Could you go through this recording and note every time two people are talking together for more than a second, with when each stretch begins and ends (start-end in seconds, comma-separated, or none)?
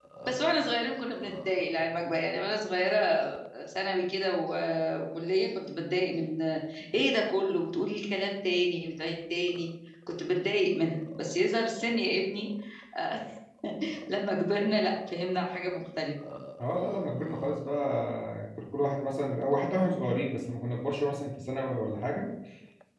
none